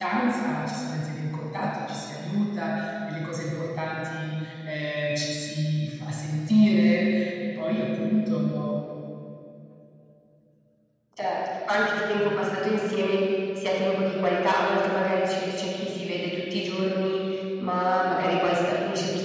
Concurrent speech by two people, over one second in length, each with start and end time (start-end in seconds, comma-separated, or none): none